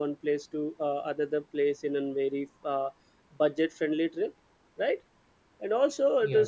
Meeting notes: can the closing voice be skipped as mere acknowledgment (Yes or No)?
Yes